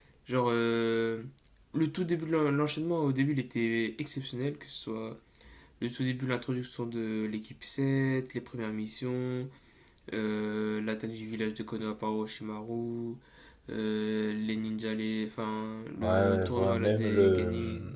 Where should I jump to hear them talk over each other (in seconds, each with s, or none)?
16.0 s